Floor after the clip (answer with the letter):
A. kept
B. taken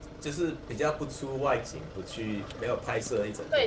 B